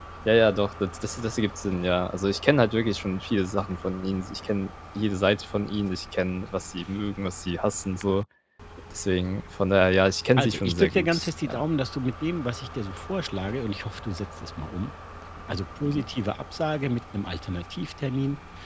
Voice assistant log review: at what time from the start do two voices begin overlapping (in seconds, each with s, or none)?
10.4 s